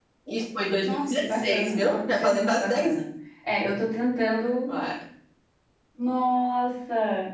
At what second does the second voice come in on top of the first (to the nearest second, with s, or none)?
1 s